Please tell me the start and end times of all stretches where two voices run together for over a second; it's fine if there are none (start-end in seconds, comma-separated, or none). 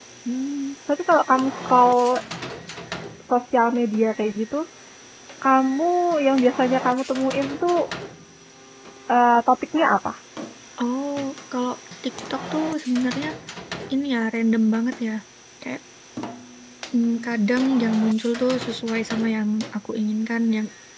none